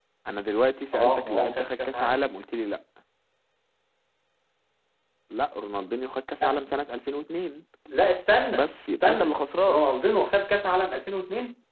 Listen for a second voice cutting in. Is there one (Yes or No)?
Yes